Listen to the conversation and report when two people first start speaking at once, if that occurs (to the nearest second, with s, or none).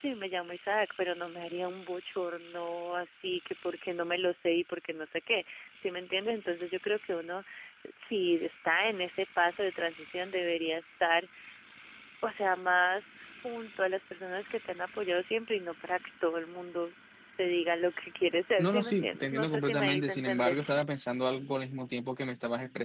19 s